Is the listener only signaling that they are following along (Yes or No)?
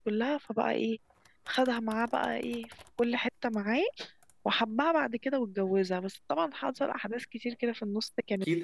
No